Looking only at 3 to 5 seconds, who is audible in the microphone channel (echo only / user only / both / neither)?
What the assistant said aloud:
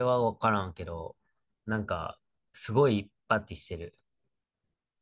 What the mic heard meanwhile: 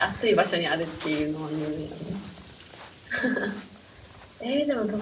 user only